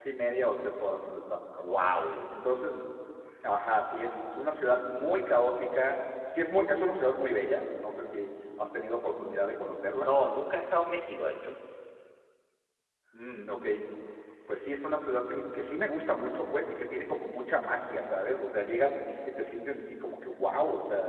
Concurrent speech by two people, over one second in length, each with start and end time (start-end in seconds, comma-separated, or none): none